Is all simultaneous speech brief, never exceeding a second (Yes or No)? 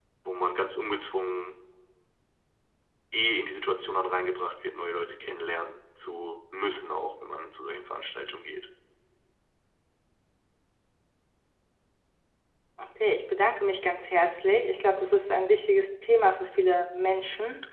Yes